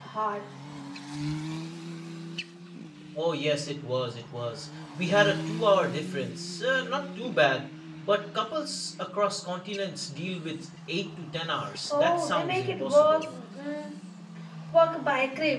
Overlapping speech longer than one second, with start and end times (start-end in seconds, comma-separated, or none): 11.9-13.2